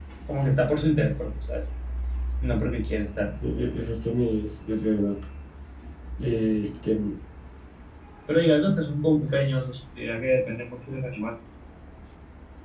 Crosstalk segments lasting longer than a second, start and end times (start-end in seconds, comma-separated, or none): none